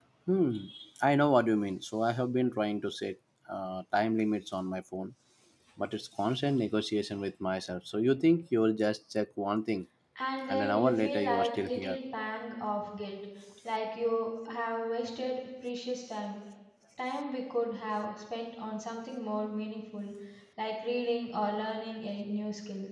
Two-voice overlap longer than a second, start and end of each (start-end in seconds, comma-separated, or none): 10.5-12.0